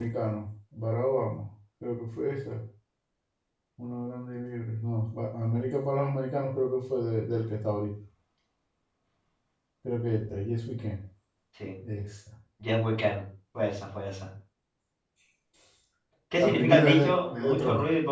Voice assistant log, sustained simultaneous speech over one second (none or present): present